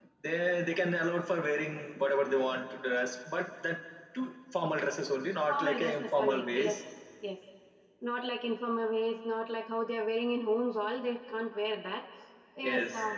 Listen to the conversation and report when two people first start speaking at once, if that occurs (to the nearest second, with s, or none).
5 s